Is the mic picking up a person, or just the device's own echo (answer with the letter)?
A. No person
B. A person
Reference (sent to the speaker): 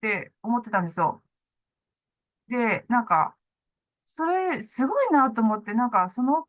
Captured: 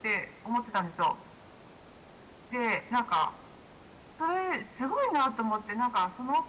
A